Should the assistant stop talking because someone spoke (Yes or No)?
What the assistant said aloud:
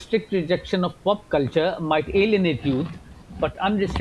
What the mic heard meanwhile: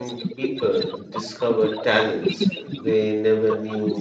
Yes